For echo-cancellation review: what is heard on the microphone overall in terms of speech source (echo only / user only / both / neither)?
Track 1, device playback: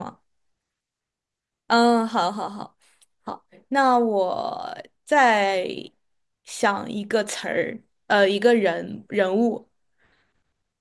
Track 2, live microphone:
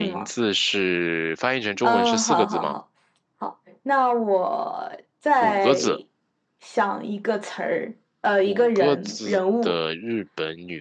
both